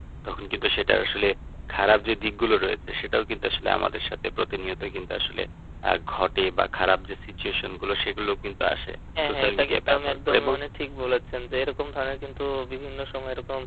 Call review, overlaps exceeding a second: present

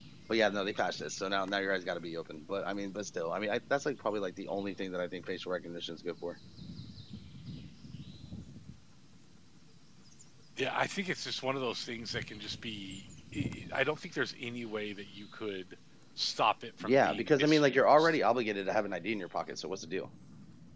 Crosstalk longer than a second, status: present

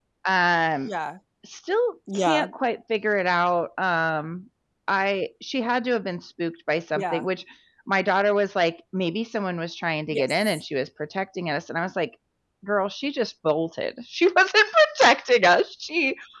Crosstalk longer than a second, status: none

